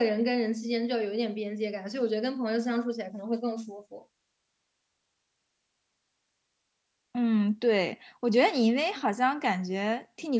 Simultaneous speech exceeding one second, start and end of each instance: none

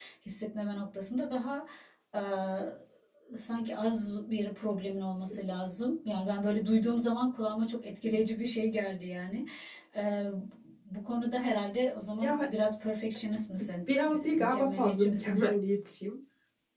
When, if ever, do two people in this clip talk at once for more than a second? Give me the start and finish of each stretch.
14.0-15.4

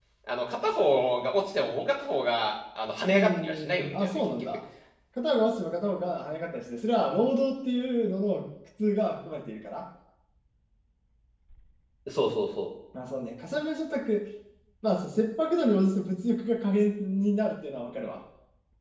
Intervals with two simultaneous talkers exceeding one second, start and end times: 3.1-4.6

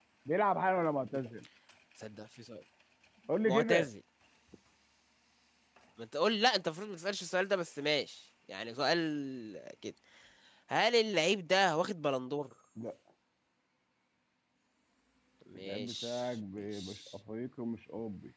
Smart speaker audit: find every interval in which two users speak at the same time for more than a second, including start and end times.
15.6-17.1

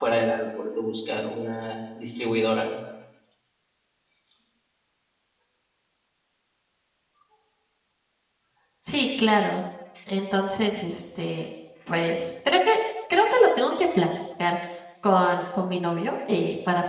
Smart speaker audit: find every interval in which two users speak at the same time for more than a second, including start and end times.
none

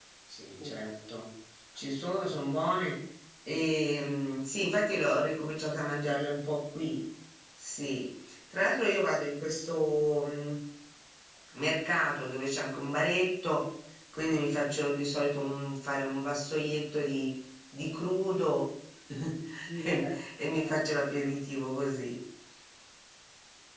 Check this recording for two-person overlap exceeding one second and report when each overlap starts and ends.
19.8-21.3

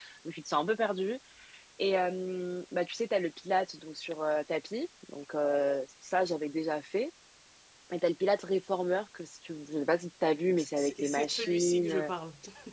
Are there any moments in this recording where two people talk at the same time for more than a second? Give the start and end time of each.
10.8-12.1

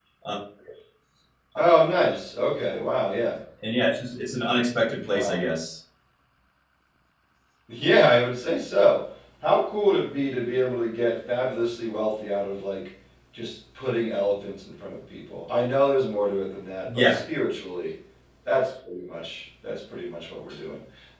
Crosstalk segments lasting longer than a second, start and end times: none

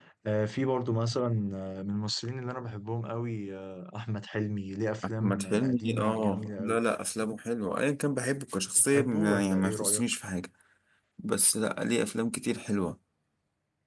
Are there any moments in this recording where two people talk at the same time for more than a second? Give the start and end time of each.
5.0-6.8, 8.8-10.1

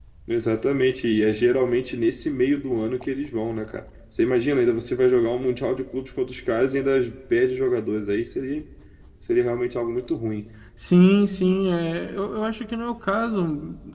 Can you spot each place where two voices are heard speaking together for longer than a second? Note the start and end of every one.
none

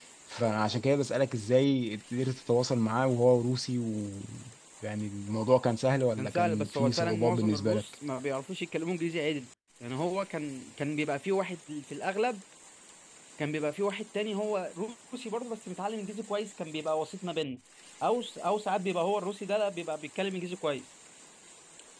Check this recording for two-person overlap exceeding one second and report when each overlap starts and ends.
6.2-7.8

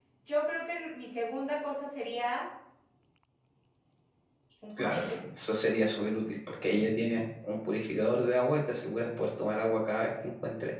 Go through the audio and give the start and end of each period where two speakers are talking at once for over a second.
none

